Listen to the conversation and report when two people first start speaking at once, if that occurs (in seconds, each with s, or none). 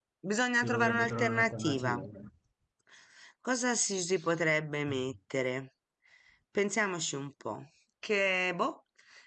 0.5 s